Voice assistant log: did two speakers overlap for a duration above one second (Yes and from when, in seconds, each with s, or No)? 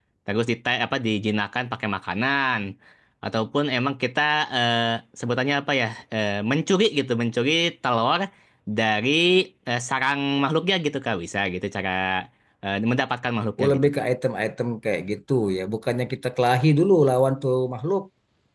No